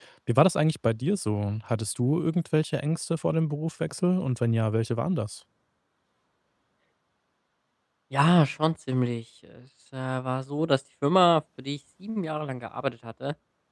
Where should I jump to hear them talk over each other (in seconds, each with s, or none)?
none